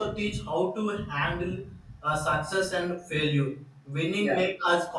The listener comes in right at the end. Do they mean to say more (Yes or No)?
No